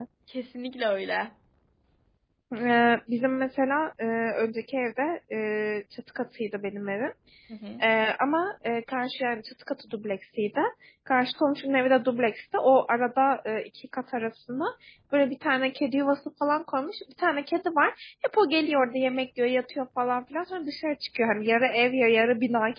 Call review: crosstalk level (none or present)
none